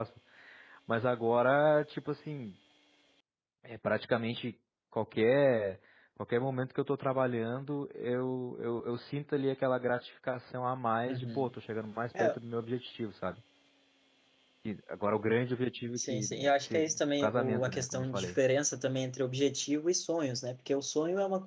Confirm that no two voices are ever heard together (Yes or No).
No